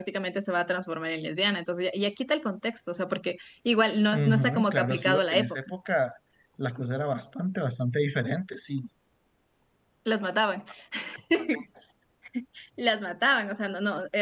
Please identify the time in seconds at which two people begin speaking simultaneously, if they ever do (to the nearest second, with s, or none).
4 s